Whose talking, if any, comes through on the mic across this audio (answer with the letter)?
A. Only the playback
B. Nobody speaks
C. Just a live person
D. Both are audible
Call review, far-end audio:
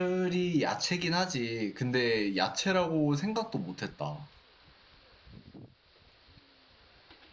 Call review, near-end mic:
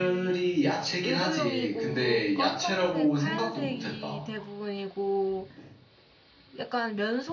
D